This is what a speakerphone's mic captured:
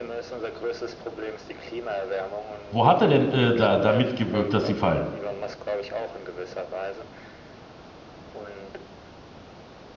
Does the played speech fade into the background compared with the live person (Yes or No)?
Yes